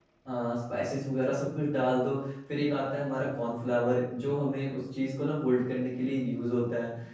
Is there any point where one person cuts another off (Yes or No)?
No